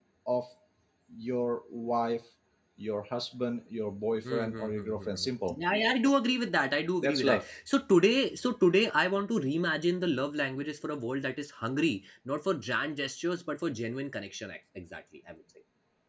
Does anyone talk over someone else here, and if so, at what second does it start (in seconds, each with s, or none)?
4.3 s